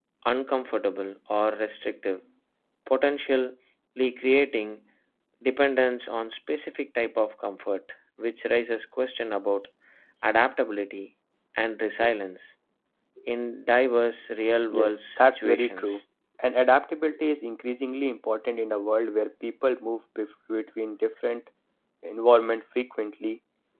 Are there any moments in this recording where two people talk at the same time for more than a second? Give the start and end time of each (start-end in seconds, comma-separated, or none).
14.7-16.0